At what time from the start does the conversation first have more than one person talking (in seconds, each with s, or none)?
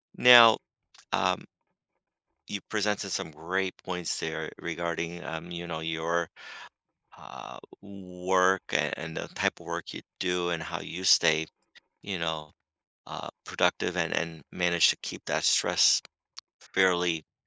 none